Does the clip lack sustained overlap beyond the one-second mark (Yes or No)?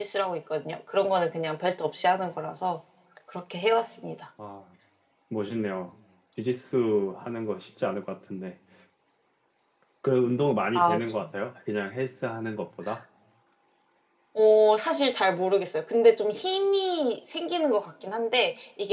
Yes